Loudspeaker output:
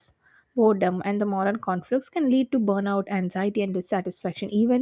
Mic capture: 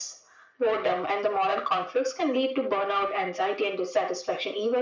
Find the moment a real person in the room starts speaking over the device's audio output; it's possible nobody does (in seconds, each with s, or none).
none